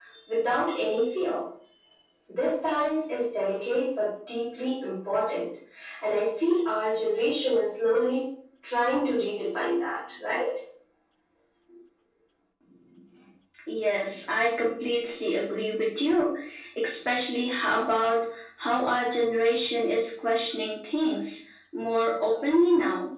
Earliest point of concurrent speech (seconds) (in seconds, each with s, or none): none